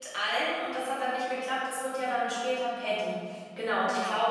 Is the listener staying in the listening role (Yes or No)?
Yes